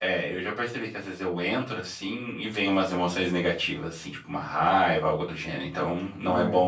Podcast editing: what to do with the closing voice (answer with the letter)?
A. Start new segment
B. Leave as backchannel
B